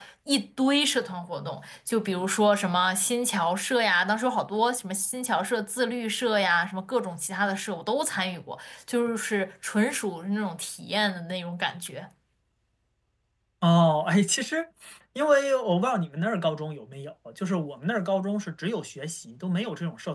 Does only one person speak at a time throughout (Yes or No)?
Yes